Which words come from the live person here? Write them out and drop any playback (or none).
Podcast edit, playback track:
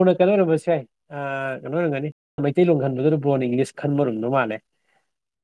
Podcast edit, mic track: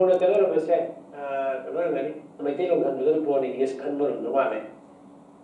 none